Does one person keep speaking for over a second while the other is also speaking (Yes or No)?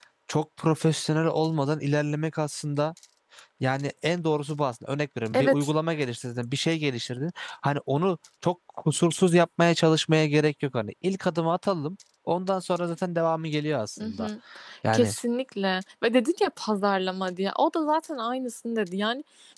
No